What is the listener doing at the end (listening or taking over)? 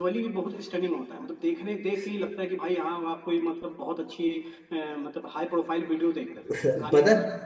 taking over